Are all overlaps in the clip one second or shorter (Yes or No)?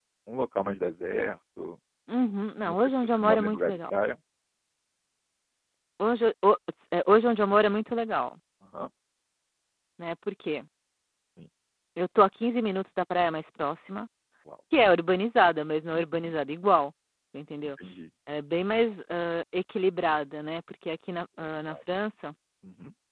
No